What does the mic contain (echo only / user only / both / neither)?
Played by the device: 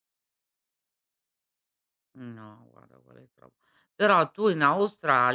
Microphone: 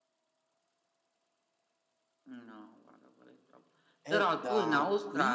both